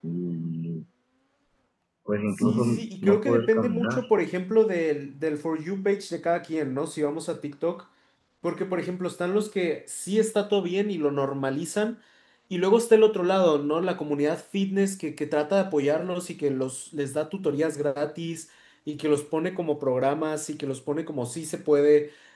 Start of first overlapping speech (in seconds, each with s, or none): 2.3 s